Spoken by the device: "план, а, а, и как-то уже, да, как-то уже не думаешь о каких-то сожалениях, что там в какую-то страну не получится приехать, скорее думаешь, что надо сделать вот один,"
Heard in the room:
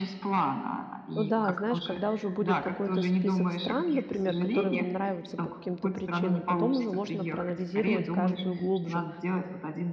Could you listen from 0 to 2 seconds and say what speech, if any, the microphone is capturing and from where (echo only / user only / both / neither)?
both